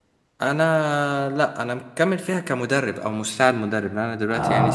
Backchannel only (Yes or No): Yes